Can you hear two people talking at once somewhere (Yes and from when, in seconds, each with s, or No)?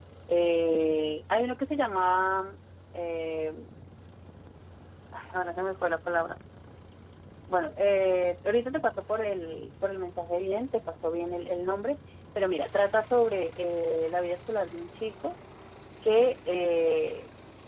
No